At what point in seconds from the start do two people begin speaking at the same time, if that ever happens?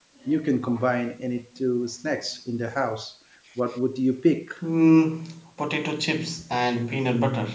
none

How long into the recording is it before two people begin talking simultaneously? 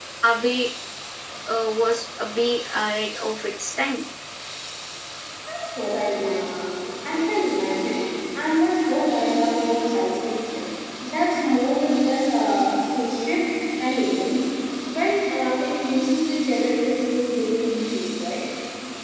none

